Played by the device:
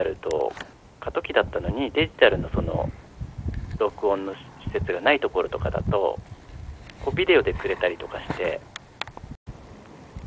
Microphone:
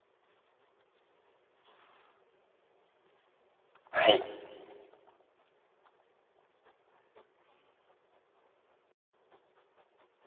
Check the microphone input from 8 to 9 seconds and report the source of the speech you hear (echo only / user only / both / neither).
neither